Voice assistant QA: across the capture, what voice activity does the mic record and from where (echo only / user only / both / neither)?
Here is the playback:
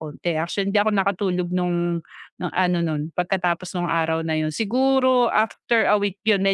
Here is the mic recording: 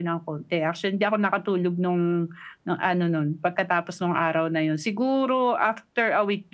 echo only